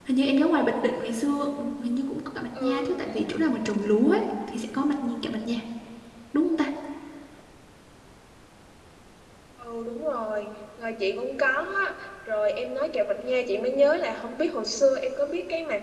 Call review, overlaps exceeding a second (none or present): none